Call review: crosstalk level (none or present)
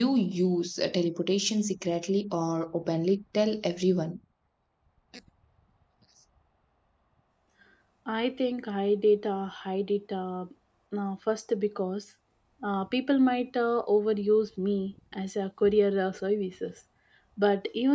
none